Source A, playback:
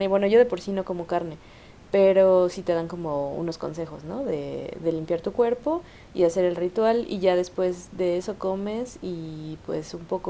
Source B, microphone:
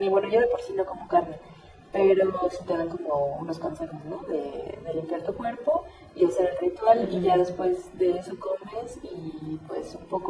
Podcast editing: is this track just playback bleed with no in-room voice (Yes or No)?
No